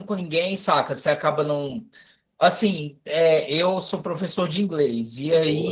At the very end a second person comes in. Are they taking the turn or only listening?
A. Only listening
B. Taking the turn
A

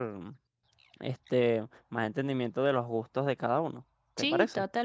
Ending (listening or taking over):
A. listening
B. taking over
B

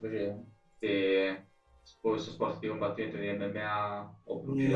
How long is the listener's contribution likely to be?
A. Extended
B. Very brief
A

